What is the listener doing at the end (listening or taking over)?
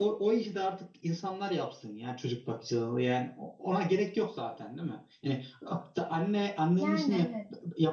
listening